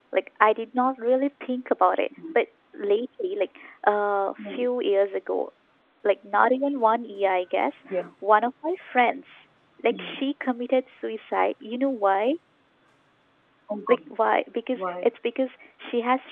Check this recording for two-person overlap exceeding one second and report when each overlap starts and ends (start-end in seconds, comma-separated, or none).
none